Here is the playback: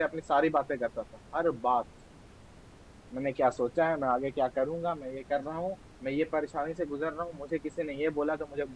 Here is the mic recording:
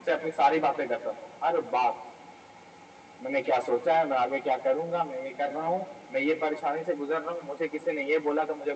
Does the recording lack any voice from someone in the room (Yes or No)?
Yes